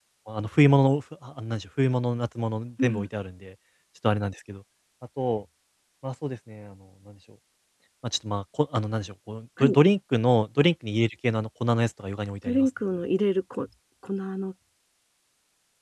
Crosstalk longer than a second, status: none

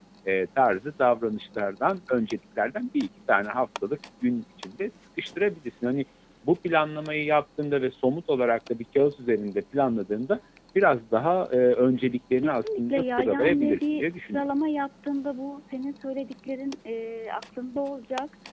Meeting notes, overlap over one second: present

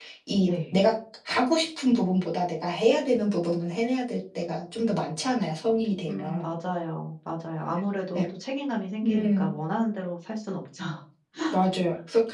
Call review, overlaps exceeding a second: none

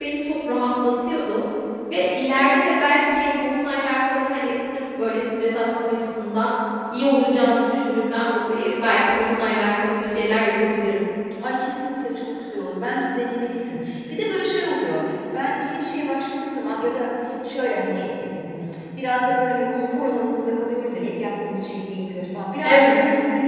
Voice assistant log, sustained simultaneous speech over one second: none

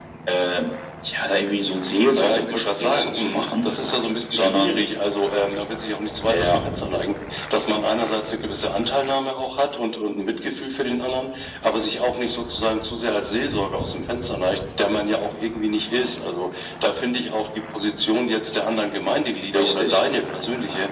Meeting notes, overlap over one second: present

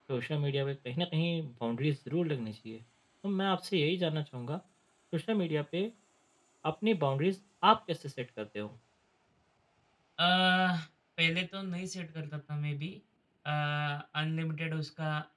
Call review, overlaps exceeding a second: none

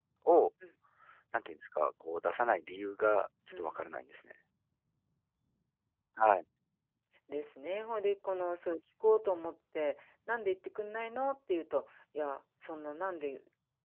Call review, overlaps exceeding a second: none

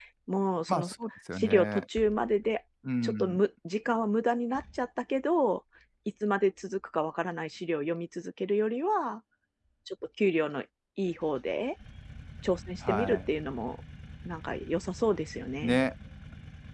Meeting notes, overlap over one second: none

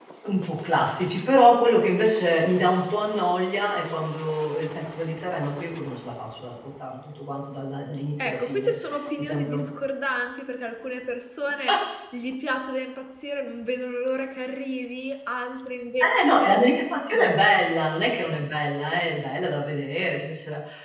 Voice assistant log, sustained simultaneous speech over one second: none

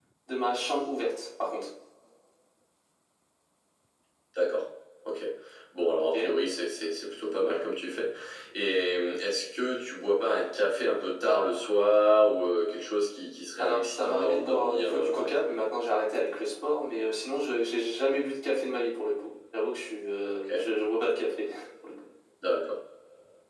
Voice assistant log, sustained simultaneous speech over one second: present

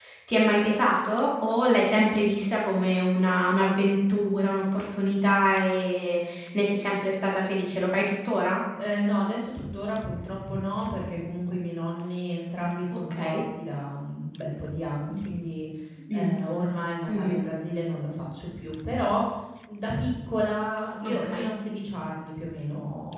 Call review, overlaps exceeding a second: none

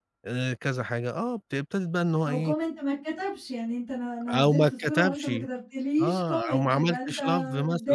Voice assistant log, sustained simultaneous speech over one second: present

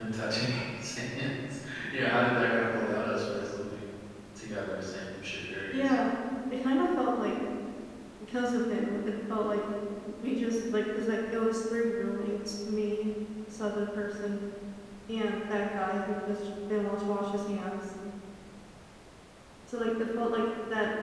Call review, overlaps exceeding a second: none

